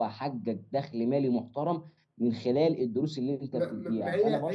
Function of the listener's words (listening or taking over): taking over